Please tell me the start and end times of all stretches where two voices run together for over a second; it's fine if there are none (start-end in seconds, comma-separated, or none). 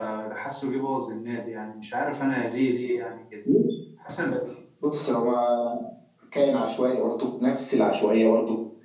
none